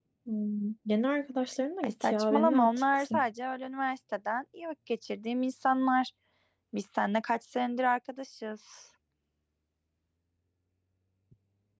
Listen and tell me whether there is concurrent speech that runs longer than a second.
Yes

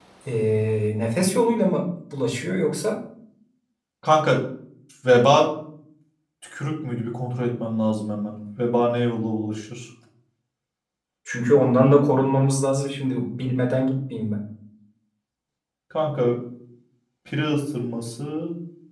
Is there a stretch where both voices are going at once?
No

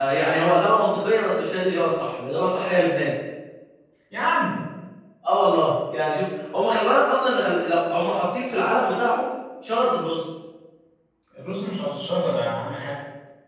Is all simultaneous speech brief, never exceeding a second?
Yes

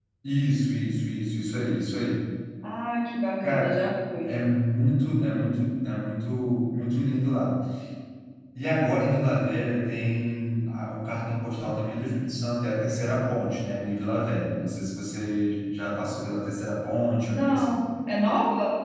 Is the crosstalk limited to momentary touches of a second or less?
Yes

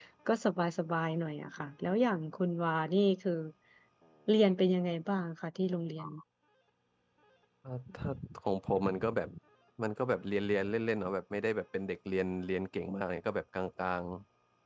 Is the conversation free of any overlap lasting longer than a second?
Yes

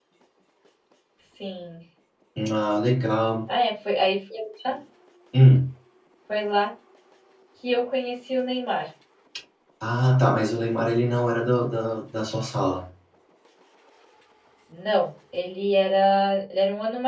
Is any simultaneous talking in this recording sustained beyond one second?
No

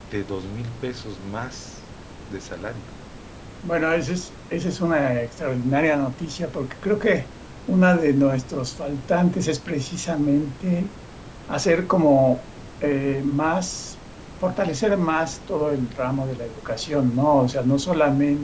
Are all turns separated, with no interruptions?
Yes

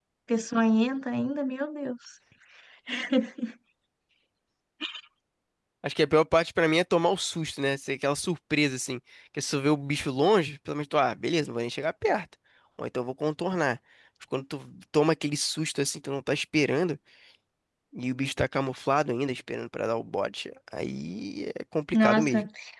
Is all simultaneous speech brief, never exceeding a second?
Yes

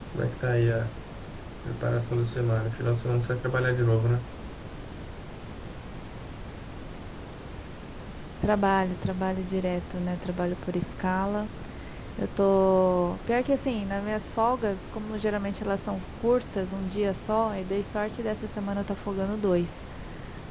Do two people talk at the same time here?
No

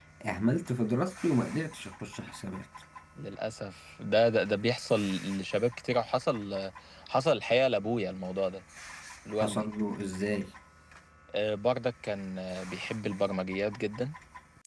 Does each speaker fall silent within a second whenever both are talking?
Yes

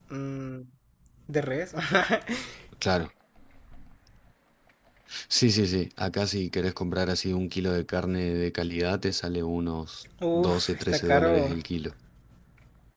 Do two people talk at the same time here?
Yes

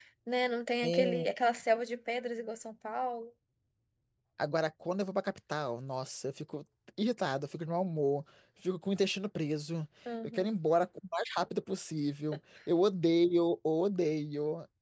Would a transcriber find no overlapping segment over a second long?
Yes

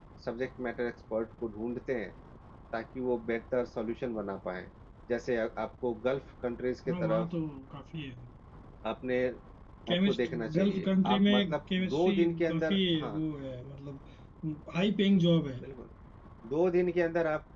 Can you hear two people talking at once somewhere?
Yes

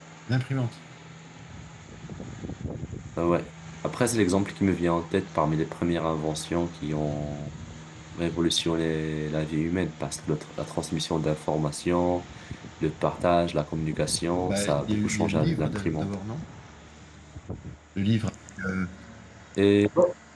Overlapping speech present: Yes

